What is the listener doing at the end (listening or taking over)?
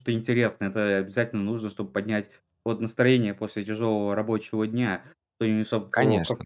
listening